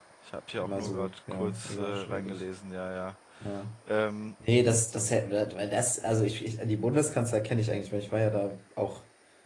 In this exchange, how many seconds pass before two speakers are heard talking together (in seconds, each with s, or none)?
0.6 s